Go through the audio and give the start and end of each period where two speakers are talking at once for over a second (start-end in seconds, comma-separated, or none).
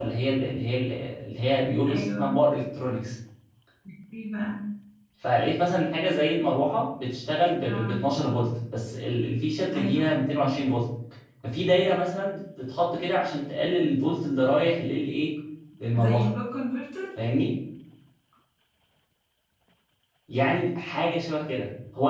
none